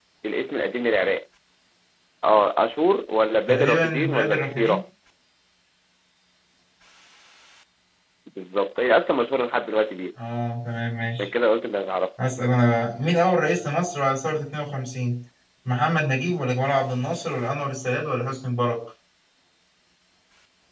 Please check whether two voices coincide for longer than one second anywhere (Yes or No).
Yes